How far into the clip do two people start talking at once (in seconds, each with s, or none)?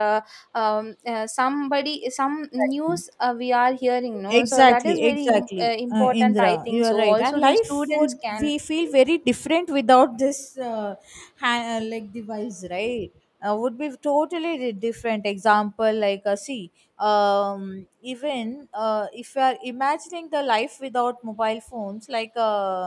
4.3 s